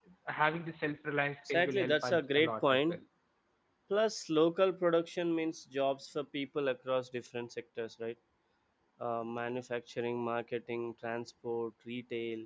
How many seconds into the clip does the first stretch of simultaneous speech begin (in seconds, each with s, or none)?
1.4 s